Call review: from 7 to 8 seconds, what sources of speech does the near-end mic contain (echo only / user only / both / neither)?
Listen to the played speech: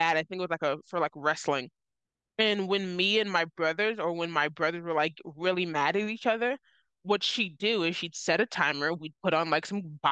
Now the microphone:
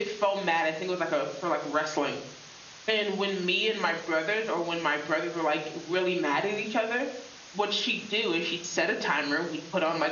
echo only